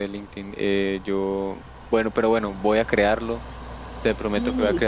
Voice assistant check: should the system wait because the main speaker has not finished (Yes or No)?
Yes